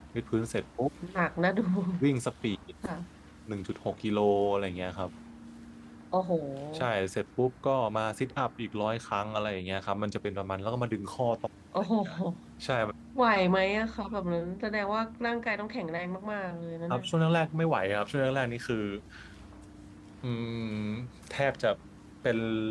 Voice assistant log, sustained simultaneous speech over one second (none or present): none